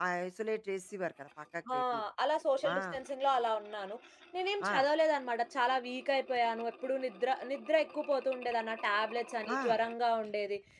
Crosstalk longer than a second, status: none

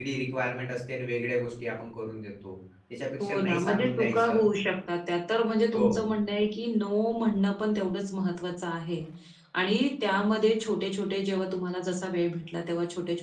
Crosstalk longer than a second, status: present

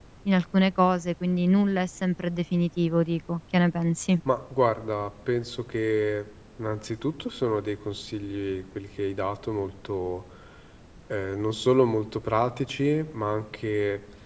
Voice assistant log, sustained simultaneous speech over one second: none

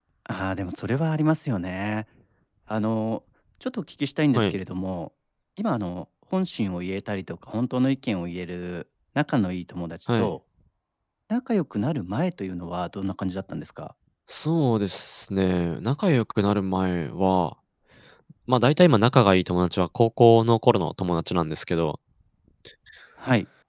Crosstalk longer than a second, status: none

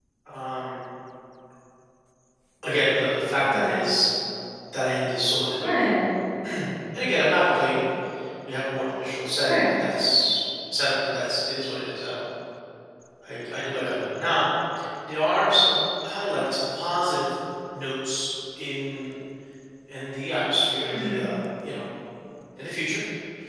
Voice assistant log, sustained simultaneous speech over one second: none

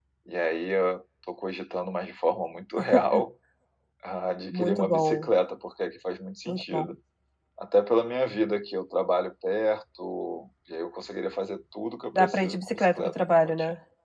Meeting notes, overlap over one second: present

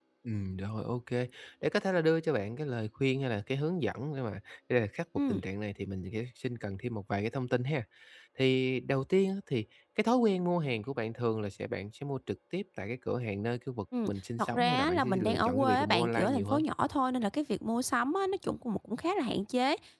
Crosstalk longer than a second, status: present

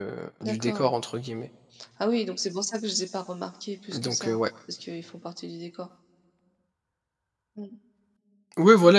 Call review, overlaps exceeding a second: none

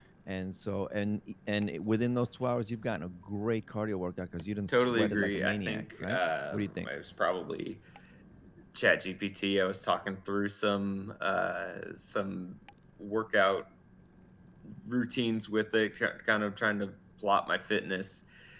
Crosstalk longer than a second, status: present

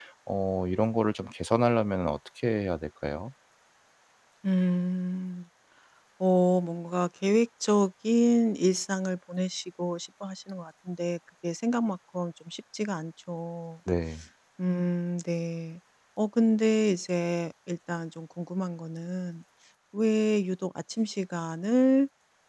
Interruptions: none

